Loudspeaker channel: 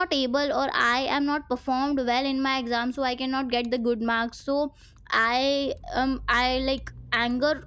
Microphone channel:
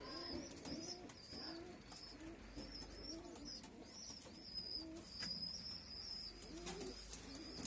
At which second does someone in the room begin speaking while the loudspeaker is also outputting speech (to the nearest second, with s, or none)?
none